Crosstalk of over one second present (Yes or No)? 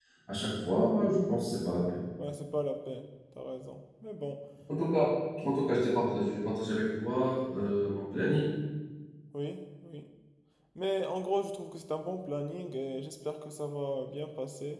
No